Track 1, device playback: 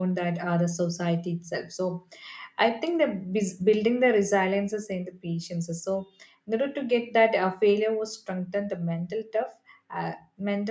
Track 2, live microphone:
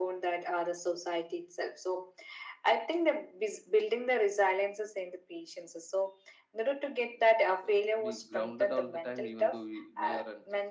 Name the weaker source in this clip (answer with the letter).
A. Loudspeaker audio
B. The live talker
B